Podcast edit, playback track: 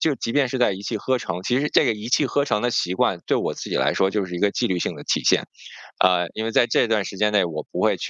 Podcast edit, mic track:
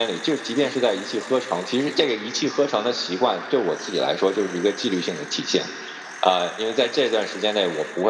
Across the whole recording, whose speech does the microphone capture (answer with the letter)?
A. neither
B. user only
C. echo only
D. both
C